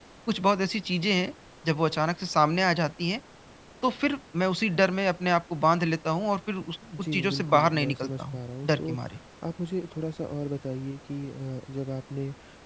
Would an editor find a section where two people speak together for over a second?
Yes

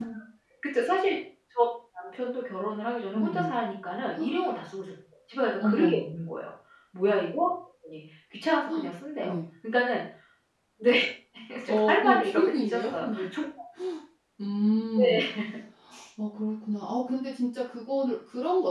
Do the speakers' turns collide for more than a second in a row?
Yes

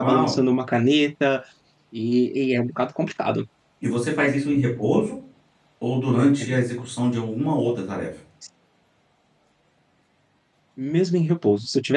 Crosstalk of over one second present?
No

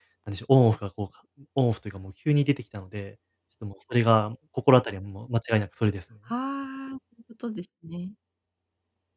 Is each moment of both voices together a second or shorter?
Yes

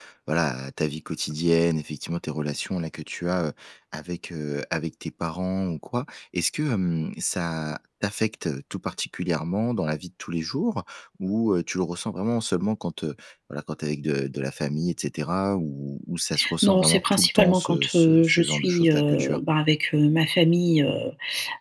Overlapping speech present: Yes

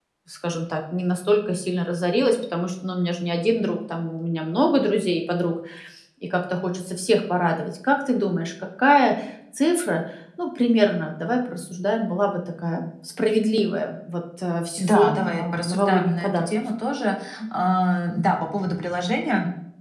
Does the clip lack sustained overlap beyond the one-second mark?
No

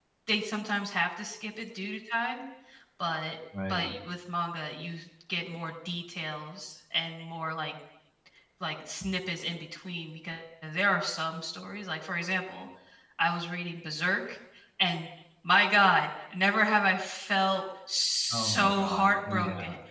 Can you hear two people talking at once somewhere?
Yes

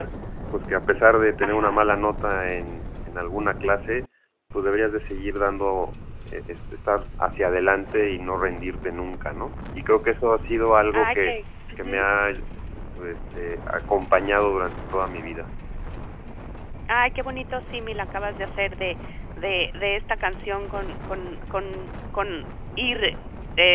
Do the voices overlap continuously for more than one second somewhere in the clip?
No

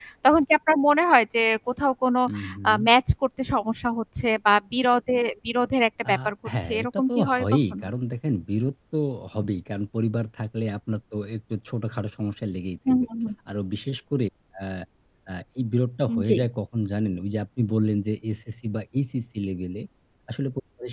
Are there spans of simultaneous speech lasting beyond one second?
Yes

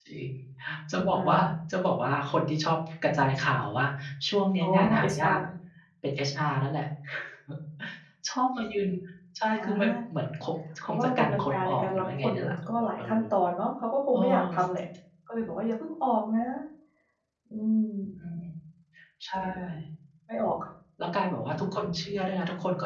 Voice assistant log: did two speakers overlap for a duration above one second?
Yes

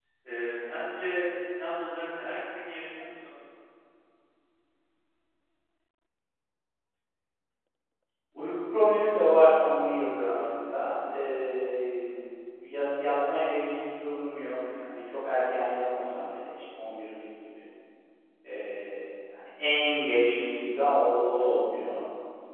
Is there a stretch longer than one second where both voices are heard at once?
No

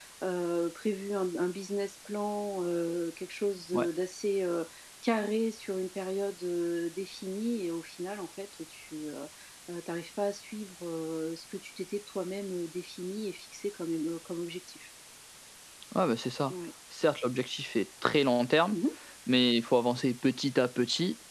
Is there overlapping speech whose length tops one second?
No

